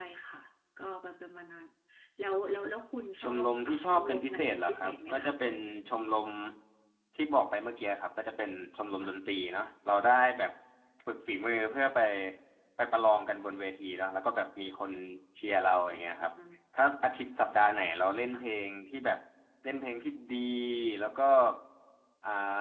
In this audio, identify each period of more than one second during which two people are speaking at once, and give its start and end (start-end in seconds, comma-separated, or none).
3.2-5.3